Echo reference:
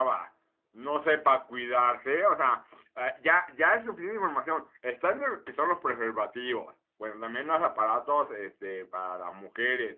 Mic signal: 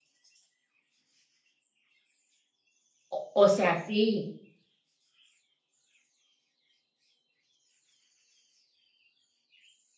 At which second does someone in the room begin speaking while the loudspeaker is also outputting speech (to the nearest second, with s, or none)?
3 s